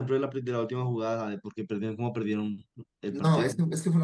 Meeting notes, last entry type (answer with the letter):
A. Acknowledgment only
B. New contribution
B